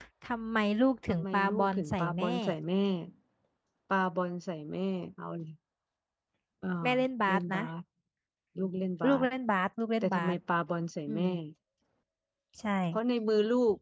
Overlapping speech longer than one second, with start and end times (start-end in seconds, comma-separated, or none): 1.1-2.3